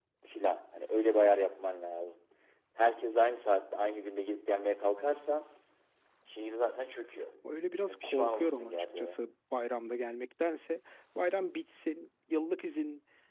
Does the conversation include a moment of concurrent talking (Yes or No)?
Yes